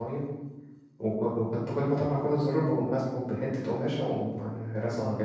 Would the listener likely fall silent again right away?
No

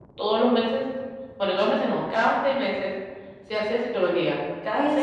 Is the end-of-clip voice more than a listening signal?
Yes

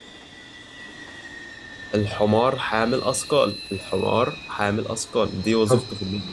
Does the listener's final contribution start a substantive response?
Yes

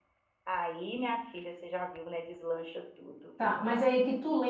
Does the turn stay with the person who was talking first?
No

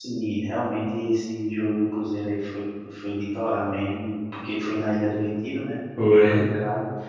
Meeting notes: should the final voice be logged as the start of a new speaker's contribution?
No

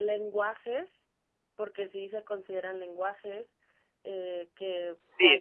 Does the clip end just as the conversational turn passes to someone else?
Yes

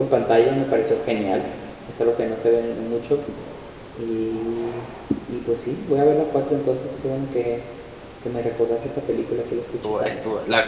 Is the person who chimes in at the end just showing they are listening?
No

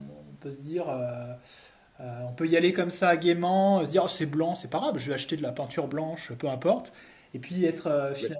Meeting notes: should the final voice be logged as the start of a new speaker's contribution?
No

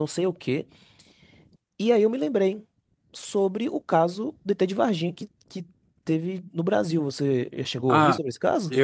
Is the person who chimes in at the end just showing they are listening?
No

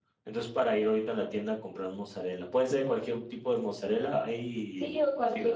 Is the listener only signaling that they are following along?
No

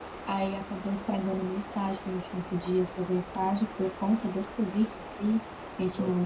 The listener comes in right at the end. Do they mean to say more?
No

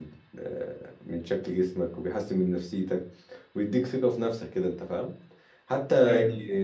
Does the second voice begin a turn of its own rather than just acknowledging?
No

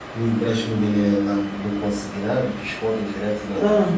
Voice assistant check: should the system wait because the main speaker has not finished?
Yes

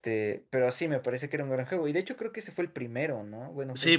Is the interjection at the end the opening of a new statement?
Yes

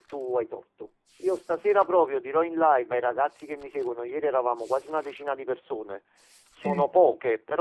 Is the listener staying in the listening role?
Yes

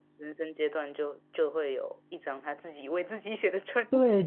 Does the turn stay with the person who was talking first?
No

